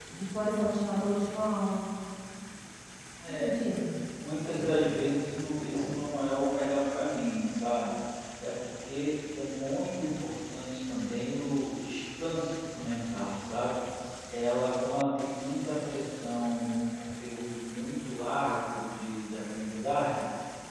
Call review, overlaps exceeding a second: none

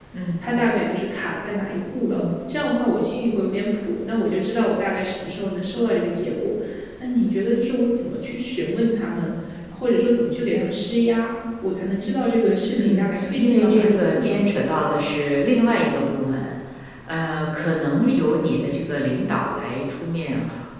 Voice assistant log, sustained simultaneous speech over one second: present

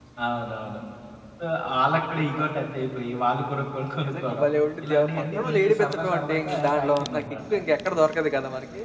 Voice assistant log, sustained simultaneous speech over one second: present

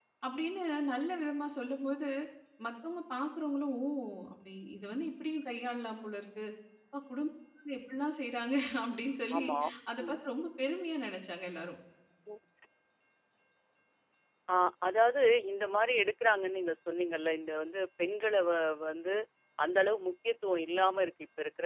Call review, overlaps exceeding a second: none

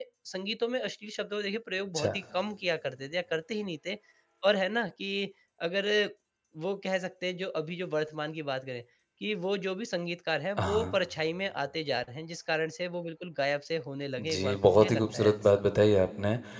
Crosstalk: present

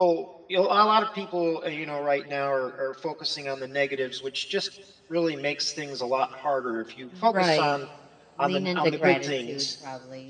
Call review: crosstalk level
present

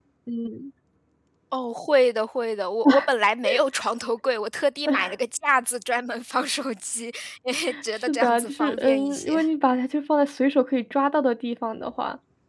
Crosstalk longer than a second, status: present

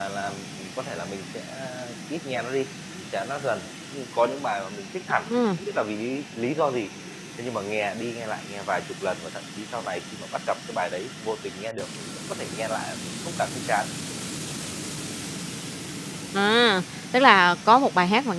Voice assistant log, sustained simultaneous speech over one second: none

